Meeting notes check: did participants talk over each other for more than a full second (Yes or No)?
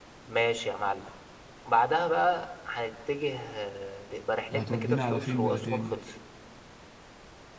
Yes